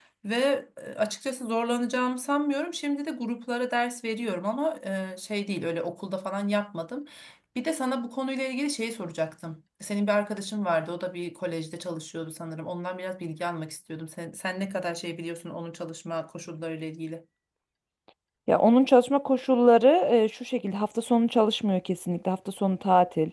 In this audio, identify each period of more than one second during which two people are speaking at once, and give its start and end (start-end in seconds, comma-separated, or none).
none